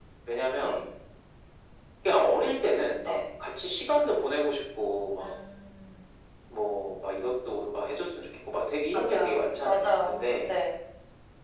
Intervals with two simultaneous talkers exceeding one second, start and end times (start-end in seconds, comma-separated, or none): 8.9-10.5